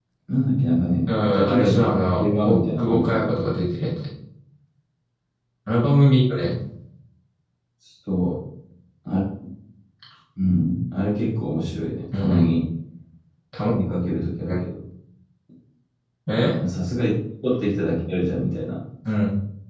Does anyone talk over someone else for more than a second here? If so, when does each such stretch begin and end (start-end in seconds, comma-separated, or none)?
1.1-3.3